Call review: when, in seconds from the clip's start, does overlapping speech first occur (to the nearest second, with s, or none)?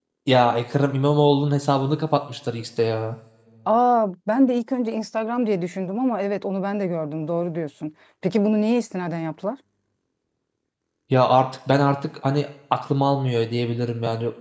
none